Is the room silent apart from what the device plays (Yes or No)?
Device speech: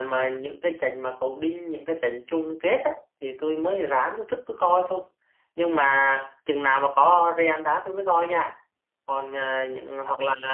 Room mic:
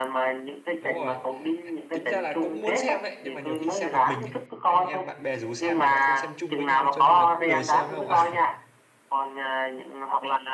No